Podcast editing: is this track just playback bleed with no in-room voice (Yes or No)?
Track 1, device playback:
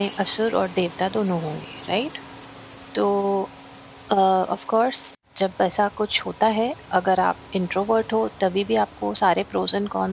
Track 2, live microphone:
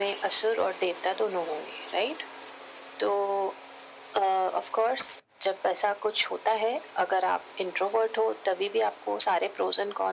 Yes